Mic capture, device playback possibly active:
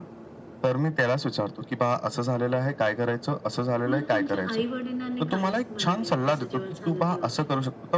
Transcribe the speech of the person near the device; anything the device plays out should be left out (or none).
मग तुमच्या आई-वडिलांनी काय म्हणाले असं जेव्हा झालं तेव्हा?